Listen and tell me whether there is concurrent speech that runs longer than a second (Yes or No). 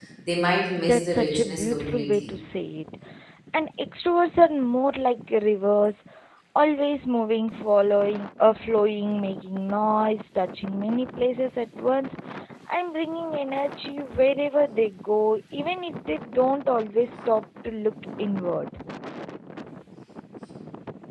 Yes